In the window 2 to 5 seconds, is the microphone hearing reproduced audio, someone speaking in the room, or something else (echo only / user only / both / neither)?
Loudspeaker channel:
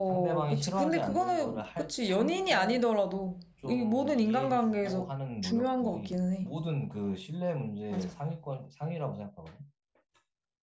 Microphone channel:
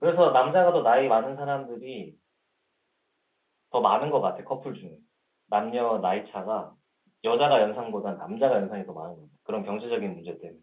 user only